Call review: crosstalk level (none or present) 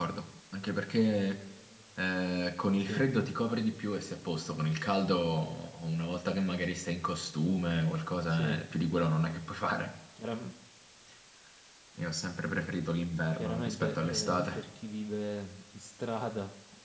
present